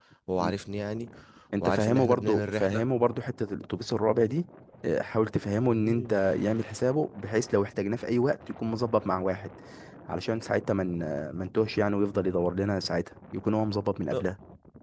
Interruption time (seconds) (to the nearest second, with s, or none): 2 s